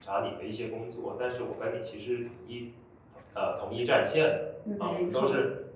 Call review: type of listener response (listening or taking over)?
listening